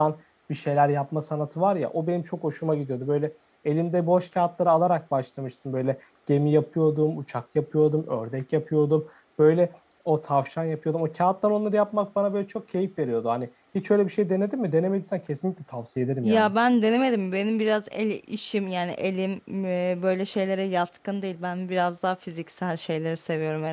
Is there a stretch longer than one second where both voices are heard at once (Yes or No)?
No